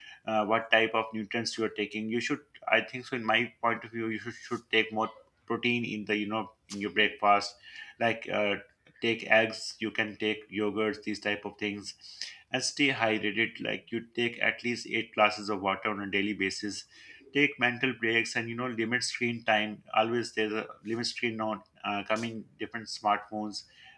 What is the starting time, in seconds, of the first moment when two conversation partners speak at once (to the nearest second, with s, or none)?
none